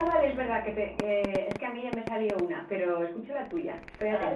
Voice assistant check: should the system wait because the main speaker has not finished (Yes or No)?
No